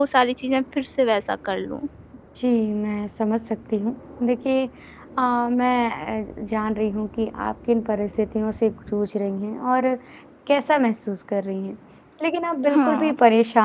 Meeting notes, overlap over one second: none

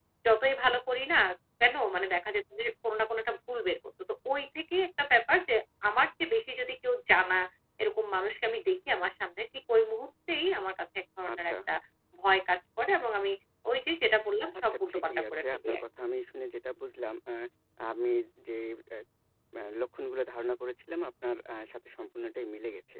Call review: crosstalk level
present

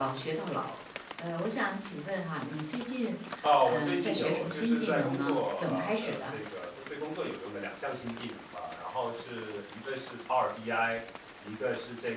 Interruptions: present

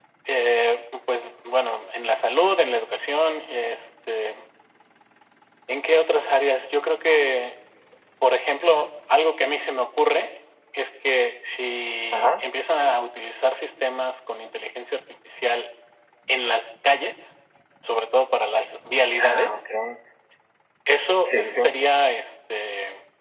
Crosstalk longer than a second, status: none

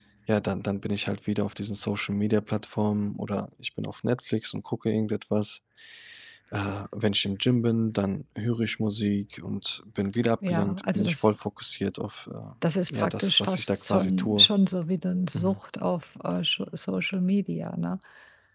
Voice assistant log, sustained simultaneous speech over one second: present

